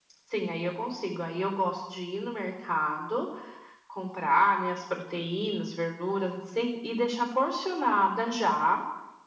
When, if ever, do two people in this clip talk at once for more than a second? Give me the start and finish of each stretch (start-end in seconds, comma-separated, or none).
none